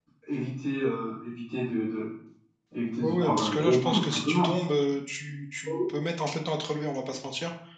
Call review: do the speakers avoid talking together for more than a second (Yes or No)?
No